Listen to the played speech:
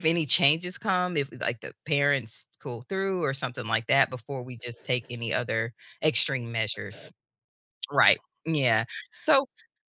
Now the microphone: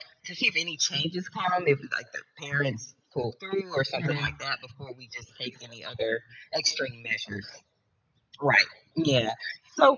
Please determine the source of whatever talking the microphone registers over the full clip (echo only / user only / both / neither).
both